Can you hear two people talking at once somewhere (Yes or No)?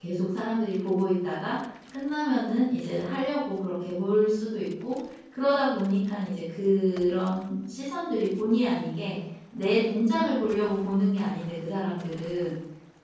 No